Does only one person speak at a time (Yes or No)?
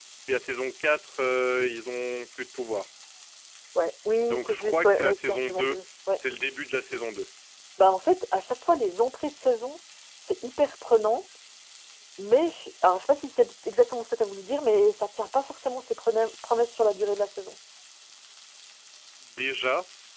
No